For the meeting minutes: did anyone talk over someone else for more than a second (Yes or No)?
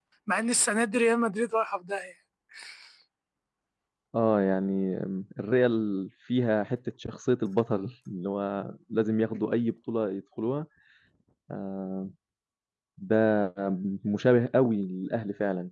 No